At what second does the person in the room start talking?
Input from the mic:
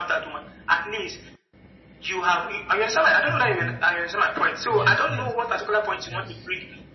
3.3 s

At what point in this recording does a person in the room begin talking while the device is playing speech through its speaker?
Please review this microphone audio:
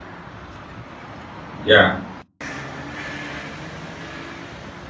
1.6 s

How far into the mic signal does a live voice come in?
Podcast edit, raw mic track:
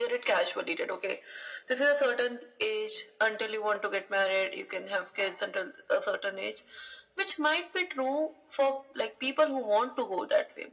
none

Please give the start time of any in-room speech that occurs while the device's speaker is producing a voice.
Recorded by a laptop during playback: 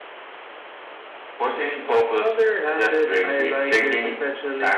none

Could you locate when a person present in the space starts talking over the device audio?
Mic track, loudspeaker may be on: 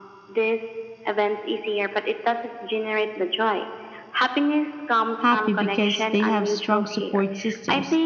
5.2 s

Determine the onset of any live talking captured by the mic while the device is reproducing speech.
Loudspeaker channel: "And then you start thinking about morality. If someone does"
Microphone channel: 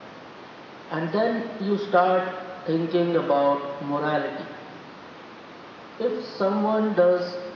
none

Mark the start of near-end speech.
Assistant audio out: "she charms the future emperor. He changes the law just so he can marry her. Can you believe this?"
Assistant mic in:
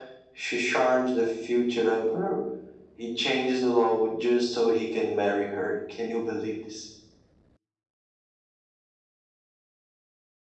none

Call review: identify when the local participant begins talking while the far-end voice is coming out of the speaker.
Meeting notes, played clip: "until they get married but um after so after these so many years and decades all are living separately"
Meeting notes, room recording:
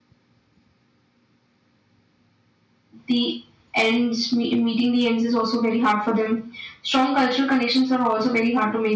3.1 s

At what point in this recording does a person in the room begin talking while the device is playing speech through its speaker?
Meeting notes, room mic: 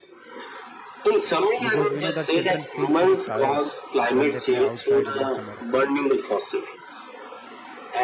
1.6 s

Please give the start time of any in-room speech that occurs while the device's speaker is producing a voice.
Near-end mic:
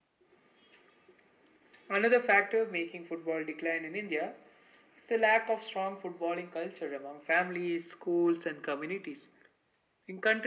none

